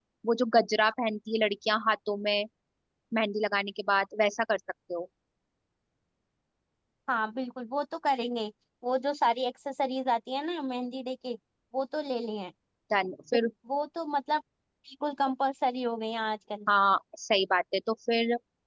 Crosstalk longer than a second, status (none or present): none